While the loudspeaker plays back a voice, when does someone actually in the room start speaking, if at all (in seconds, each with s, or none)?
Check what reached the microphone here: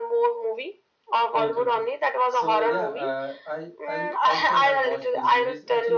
1.3 s